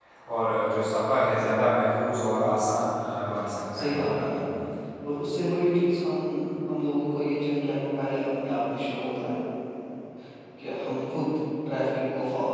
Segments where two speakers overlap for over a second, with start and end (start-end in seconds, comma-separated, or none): none